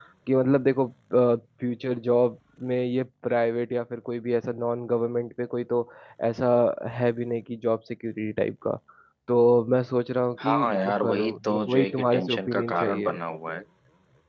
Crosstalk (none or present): present